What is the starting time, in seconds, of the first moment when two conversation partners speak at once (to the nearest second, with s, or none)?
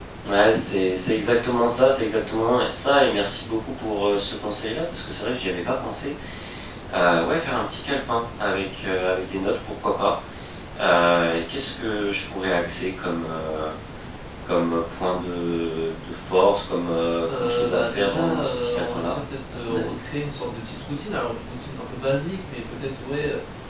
17 s